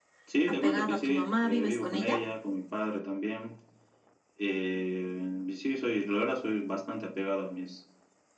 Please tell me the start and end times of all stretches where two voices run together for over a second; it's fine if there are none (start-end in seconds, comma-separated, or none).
0.6-2.2